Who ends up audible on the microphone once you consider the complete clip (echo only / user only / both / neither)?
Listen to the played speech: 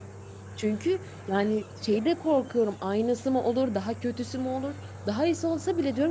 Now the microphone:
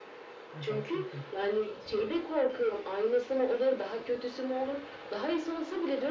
both